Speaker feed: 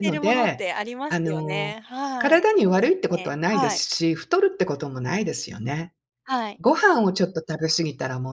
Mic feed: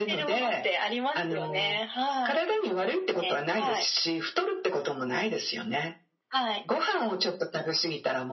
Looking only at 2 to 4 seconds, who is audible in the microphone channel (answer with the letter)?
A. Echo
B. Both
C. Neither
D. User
A